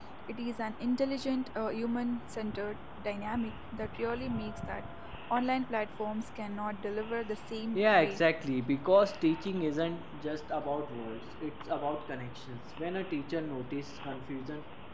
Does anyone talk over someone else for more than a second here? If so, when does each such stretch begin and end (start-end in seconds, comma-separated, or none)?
none